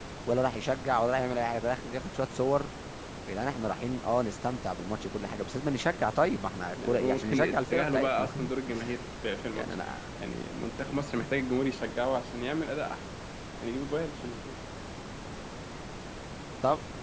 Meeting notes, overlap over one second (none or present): present